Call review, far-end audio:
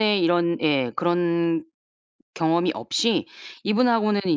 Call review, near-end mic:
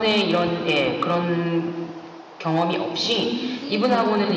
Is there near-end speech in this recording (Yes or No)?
Yes